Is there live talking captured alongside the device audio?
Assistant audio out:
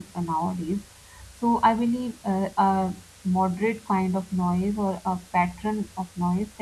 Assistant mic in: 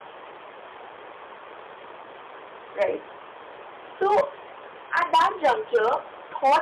Yes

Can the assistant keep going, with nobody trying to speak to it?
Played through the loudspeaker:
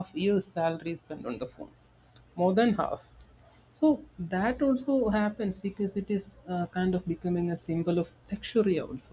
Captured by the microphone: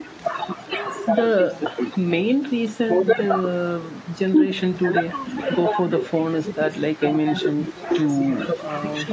No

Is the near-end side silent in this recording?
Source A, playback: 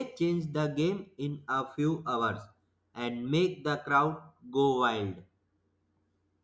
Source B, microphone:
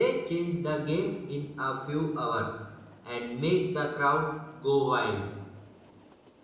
Yes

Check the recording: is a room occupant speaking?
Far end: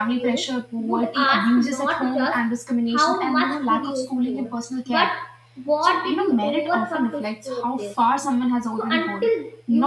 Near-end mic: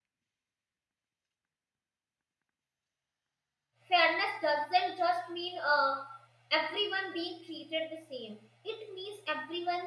Yes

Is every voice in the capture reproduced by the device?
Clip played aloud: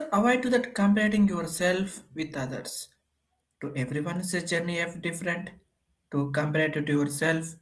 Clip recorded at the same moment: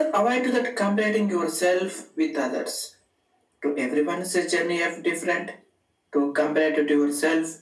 Yes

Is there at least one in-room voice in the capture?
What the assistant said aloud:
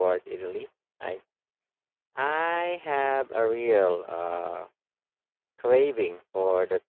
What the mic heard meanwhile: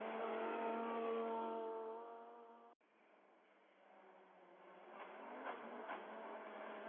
No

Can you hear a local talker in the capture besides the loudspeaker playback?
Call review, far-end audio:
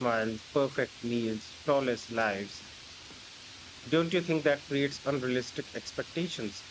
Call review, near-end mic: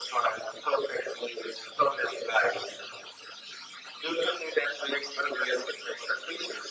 No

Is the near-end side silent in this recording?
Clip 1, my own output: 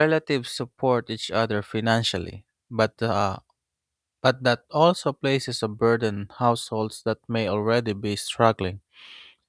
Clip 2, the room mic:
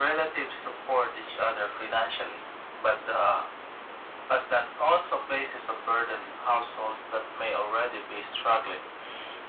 Yes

